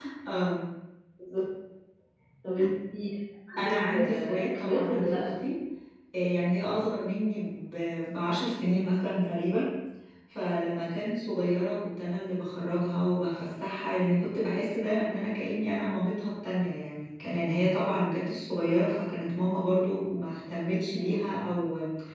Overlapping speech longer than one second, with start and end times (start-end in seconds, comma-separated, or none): 3.6-5.3